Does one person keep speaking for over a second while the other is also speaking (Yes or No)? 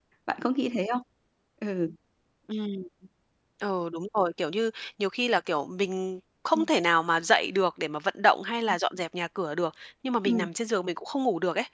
No